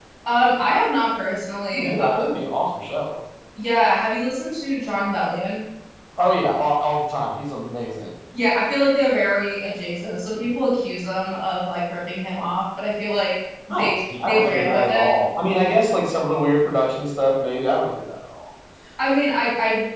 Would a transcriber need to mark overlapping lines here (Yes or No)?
Yes